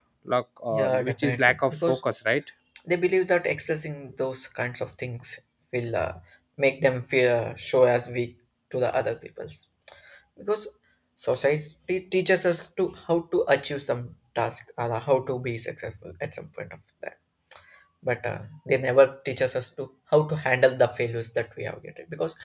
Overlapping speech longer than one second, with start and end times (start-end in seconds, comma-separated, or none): 0.7-2.0